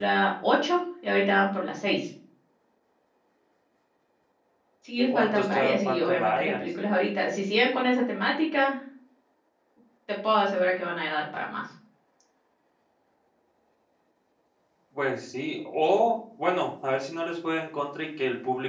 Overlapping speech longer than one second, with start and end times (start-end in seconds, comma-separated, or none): 5.2-6.6